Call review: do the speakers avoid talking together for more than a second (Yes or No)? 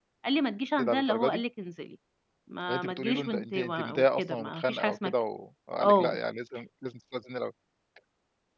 No